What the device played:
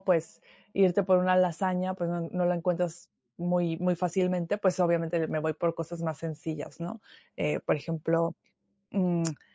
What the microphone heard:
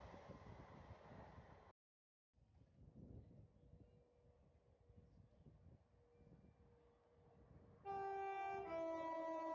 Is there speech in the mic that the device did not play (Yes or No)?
No